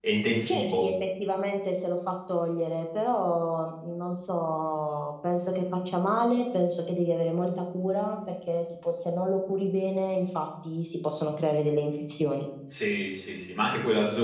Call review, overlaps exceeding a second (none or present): none